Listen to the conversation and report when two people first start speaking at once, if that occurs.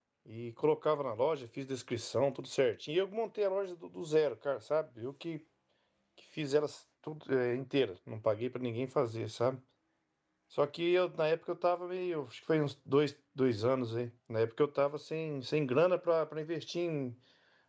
none

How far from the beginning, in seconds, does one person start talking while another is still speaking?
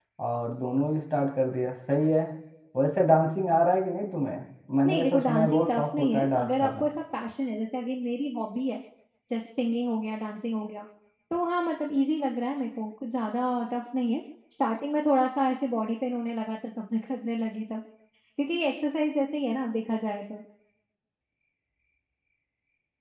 4.8 s

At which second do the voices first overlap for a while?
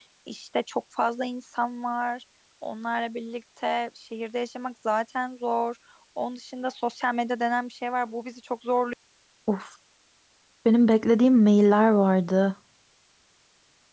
none

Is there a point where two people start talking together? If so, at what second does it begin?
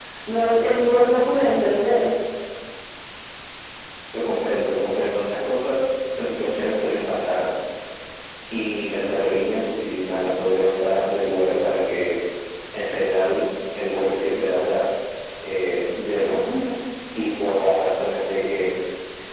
none

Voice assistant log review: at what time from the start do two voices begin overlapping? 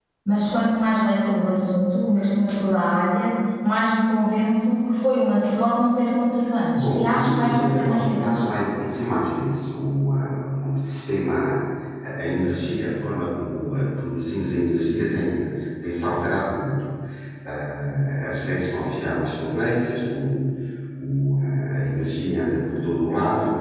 6.8 s

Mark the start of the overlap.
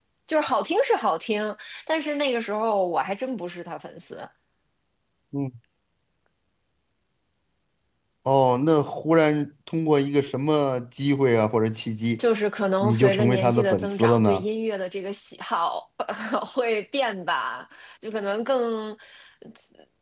12.8 s

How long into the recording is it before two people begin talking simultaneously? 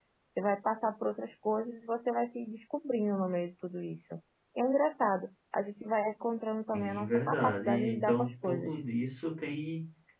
6.7 s

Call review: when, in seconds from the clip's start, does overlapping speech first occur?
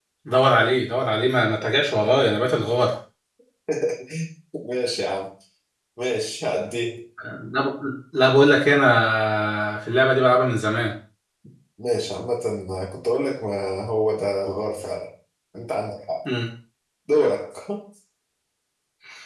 none

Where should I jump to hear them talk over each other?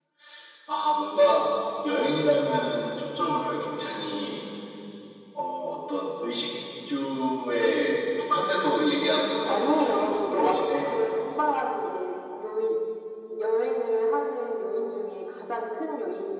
9.4 s

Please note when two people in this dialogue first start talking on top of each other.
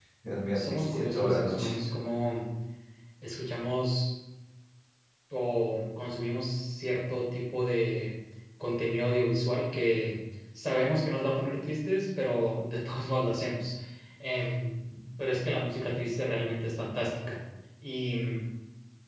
0.5 s

